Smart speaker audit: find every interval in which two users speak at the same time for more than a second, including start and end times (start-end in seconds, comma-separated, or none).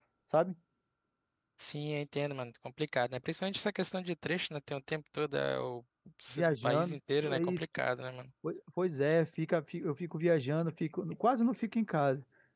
6.4-7.6